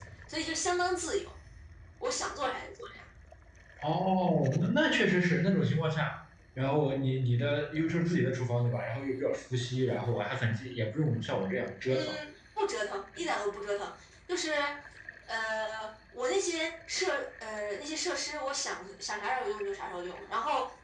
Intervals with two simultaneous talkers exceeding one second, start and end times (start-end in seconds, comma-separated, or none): none